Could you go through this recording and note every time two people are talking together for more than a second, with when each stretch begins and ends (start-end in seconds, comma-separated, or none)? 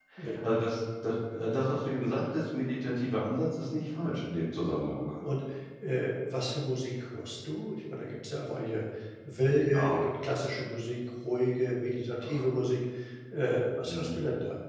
none